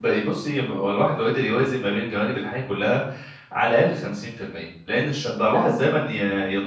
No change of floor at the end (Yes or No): Yes